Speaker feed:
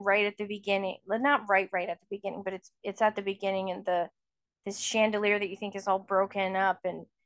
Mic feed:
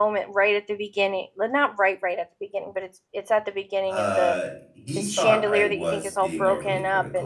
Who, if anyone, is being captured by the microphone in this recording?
both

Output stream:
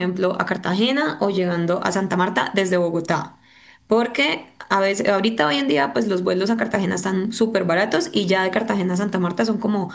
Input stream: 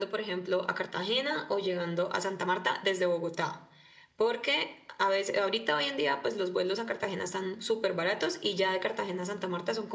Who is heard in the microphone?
echo only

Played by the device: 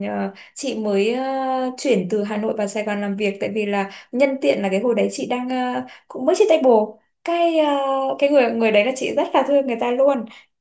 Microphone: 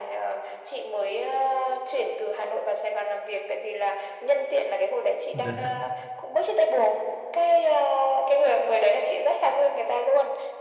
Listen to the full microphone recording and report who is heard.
both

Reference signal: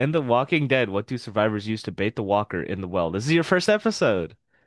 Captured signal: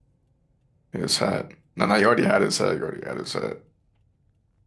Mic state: user only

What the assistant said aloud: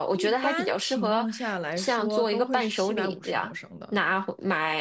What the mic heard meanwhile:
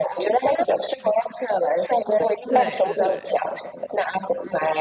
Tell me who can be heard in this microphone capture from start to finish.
both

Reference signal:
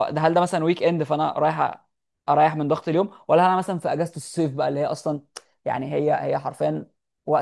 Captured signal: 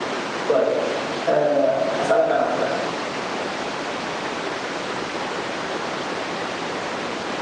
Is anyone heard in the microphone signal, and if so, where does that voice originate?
user only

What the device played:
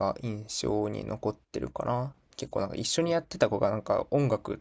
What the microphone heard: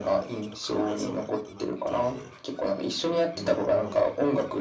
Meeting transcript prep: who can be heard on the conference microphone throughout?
both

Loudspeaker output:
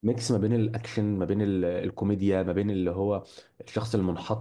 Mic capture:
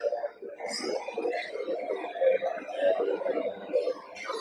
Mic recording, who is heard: echo only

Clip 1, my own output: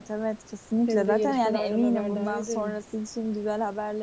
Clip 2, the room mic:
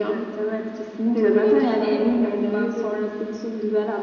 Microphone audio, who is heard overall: echo only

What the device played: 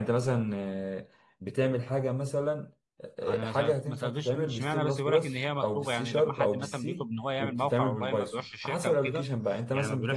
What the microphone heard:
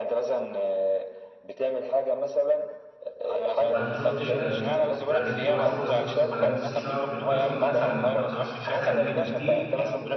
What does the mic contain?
both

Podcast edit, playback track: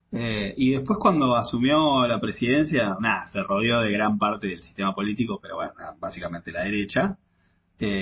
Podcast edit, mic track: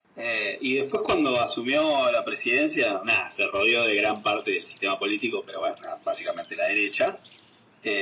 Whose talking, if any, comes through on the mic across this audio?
echo only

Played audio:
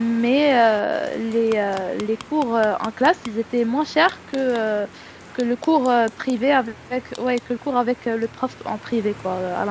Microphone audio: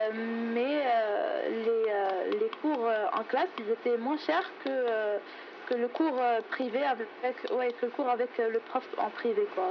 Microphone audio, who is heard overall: echo only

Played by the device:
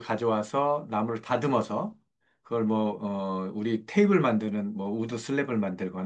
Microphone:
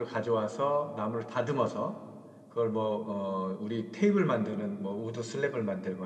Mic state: echo only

